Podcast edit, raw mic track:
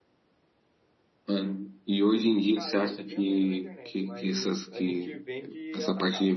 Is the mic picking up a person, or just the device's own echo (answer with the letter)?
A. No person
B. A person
B